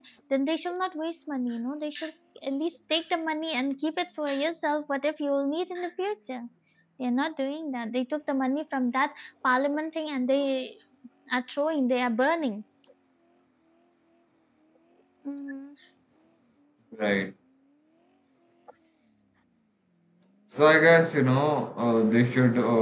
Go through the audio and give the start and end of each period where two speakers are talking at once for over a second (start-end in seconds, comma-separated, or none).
none